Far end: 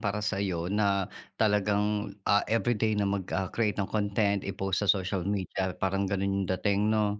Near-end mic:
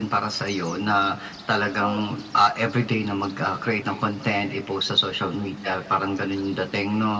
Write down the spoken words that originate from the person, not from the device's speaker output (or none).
O